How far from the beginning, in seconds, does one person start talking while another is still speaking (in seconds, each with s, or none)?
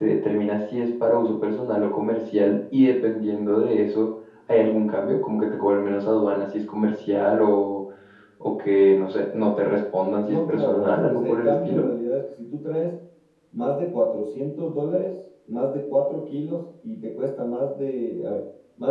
10.2 s